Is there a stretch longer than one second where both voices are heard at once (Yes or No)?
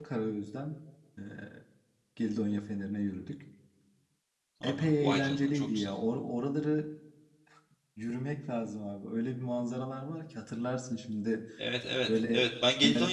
Yes